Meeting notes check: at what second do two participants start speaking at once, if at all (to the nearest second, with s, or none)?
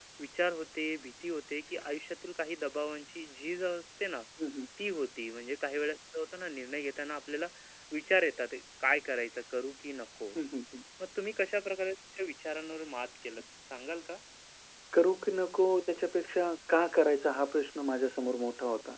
none